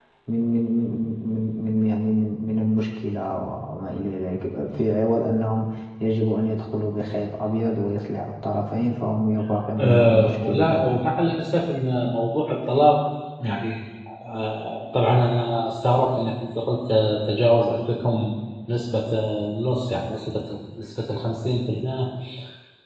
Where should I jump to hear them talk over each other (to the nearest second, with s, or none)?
10 s